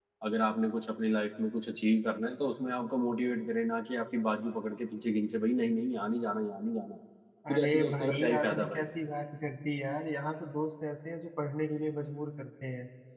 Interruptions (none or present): present